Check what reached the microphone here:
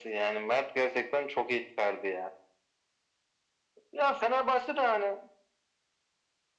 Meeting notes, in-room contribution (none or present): none